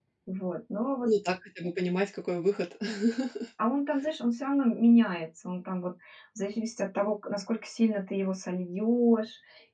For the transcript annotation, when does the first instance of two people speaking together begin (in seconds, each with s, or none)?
none